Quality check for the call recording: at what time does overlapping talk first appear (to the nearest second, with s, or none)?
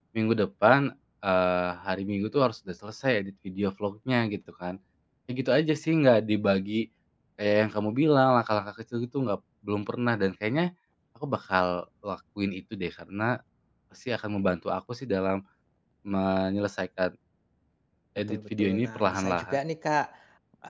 18 s